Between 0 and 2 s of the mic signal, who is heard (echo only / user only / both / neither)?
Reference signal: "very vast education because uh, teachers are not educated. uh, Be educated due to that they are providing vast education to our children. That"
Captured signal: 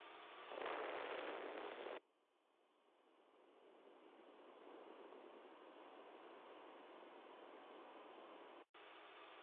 neither